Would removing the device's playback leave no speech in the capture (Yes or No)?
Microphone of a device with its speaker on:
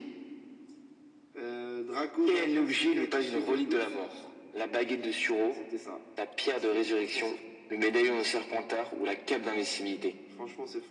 Yes